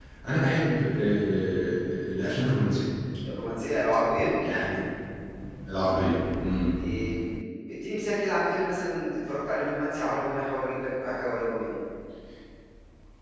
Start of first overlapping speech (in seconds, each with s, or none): none